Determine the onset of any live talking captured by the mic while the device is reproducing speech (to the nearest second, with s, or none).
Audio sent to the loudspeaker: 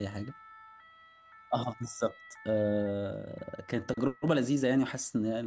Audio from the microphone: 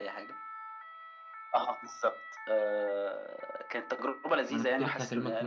4 s